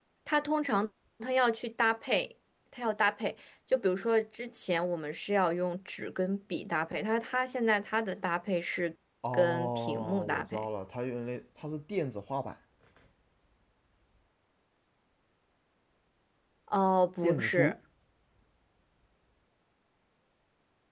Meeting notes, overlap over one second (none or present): present